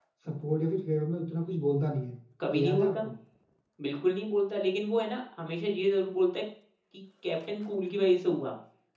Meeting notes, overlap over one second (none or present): none